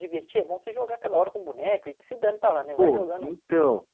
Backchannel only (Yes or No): No